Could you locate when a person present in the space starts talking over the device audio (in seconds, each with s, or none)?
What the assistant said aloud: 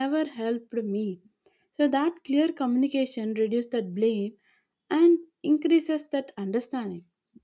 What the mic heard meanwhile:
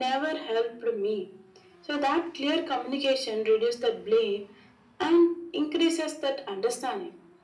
none